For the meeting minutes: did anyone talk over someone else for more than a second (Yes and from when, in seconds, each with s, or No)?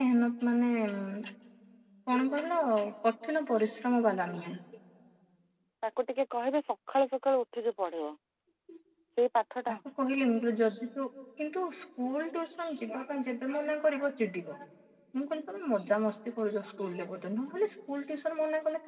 No